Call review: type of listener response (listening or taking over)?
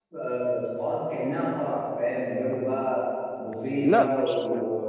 listening